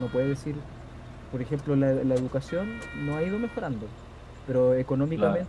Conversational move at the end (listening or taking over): listening